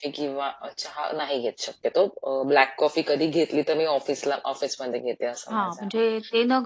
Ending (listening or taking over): taking over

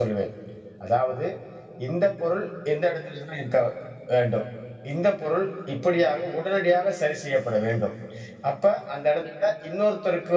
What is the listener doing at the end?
listening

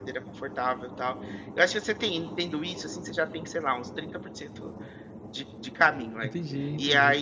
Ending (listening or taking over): listening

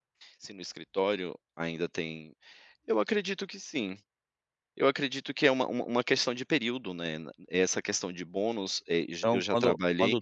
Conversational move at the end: taking over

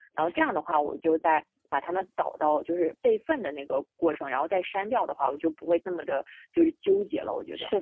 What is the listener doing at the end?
taking over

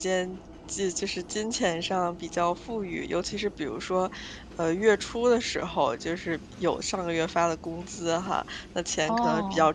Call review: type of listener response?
listening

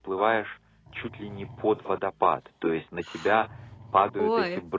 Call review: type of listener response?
listening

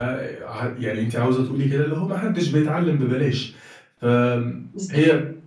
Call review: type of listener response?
listening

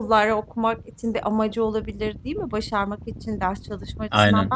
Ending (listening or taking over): listening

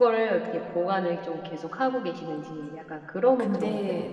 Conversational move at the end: taking over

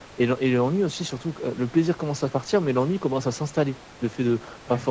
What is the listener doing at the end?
listening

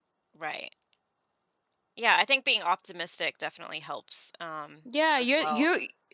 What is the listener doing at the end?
taking over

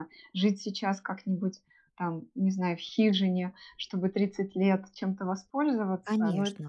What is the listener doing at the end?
listening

